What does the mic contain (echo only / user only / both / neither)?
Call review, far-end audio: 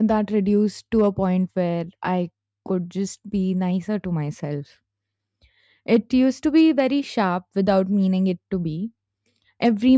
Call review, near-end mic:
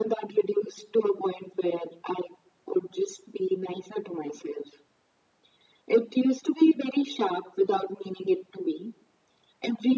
echo only